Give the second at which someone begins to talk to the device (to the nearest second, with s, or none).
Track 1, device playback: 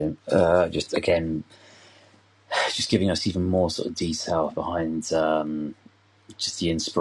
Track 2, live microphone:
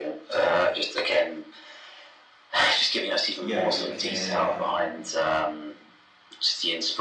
3 s